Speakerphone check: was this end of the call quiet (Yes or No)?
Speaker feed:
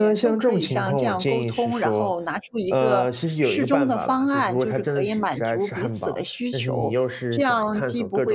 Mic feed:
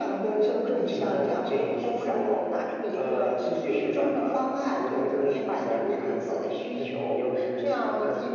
Yes